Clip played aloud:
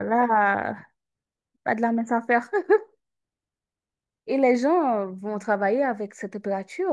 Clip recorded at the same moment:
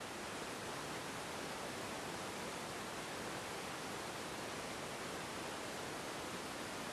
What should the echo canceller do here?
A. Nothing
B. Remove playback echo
A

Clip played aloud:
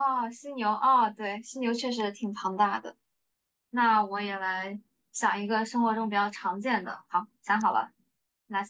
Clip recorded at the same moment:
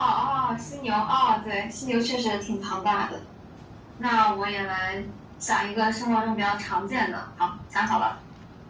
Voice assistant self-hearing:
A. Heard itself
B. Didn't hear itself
A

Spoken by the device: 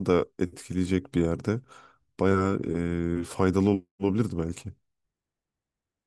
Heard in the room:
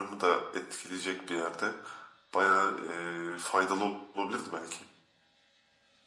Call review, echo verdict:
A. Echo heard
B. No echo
A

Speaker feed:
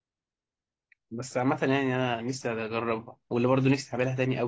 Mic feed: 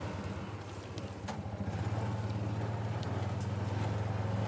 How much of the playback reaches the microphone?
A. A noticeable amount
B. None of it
B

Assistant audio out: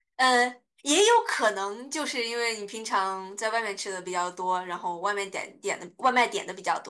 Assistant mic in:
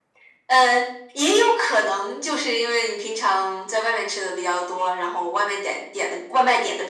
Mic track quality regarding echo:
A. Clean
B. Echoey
B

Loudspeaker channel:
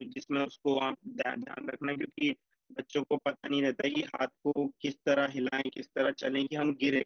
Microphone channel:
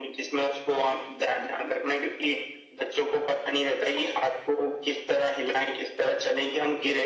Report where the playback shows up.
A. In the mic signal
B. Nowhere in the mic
A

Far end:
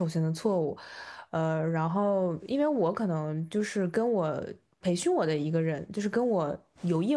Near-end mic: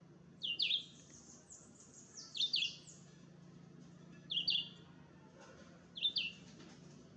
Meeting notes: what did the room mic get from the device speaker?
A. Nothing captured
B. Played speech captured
A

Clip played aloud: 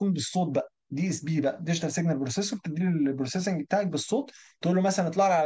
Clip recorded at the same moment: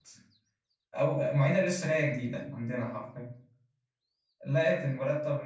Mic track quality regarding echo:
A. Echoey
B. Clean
B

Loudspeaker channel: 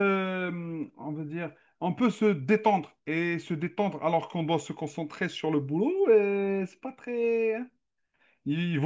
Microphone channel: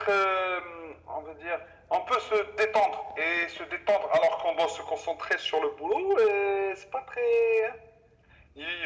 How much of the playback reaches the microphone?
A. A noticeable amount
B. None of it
A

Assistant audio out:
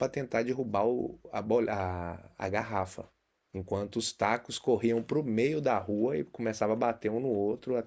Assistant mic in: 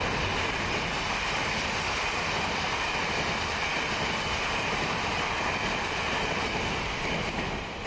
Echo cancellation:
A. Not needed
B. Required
A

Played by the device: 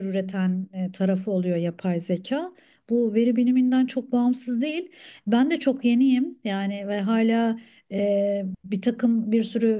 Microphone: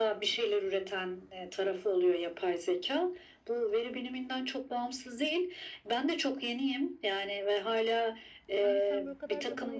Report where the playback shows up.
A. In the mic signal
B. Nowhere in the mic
A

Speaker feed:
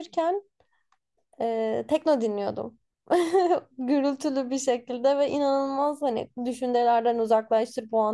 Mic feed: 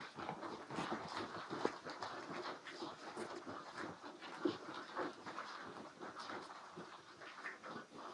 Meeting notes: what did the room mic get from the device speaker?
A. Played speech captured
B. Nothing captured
B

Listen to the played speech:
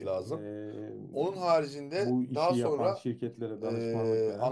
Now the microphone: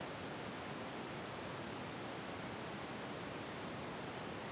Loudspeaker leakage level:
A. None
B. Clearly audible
A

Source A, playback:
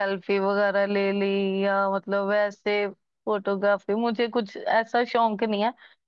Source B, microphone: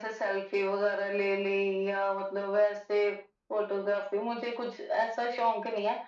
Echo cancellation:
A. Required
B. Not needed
A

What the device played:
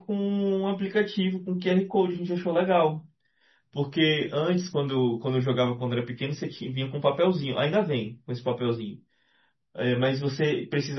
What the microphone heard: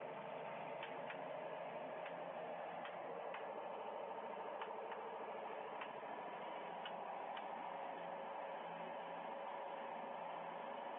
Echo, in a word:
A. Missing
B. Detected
A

